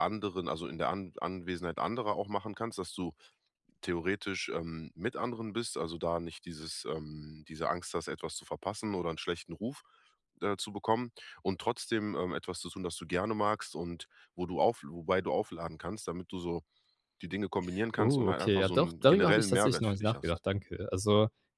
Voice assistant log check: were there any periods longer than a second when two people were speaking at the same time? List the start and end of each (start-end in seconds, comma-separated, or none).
18.0-20.3